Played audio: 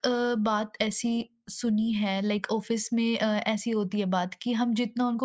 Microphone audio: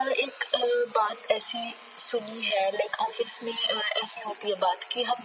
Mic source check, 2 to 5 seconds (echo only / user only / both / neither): echo only